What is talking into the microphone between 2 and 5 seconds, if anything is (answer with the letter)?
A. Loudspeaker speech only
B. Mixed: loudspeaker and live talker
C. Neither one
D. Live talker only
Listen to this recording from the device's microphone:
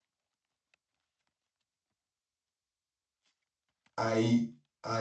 D